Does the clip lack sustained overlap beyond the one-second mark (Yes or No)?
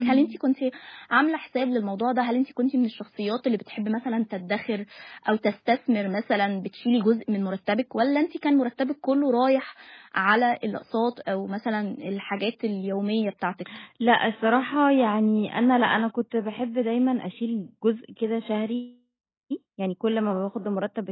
Yes